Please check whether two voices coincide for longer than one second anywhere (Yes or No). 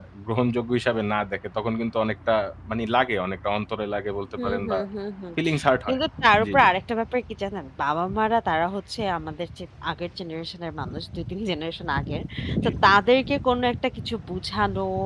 No